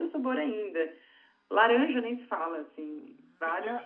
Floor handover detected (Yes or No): Yes